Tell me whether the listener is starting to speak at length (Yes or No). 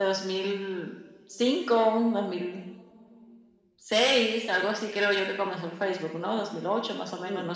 Yes